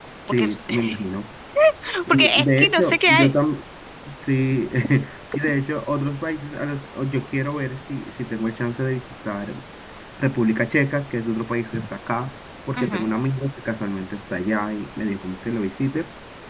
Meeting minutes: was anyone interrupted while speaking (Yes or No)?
Yes